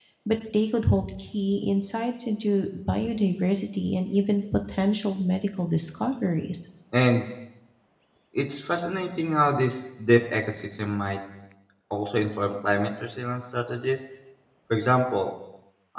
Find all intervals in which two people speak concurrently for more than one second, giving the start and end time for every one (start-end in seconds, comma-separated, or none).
none